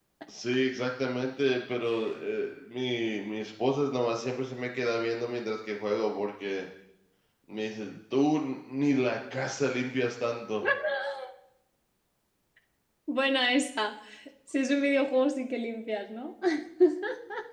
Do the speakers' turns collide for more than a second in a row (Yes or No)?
No